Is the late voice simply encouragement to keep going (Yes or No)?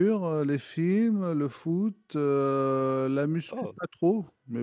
Yes